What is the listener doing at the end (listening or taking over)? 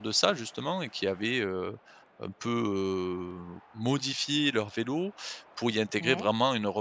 listening